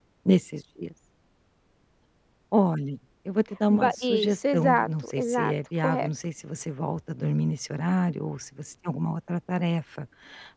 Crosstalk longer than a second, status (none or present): present